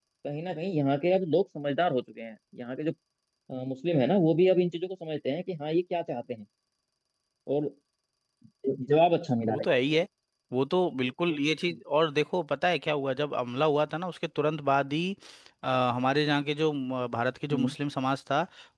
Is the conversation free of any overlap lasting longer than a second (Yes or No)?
Yes